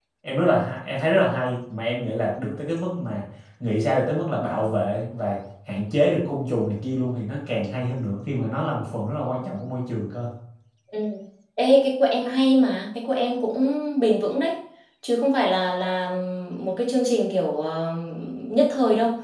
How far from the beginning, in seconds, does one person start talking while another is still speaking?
none

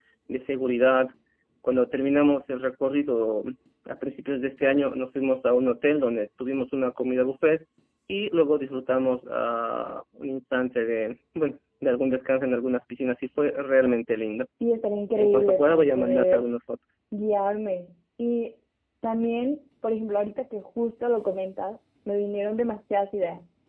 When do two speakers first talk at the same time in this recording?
15.2 s

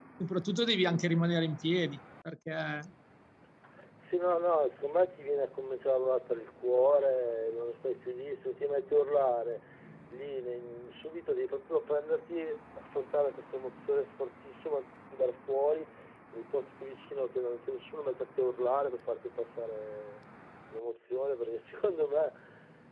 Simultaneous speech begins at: none

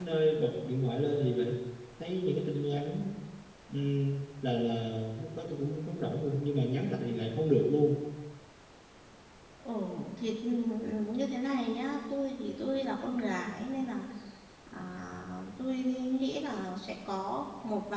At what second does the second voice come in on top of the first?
none

